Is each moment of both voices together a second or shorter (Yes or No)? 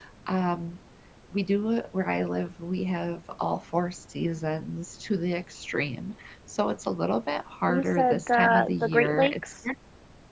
No